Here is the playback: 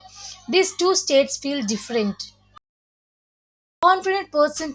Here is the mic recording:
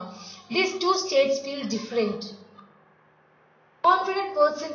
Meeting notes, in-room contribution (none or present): none